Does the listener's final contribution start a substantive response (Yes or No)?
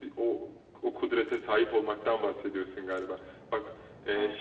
No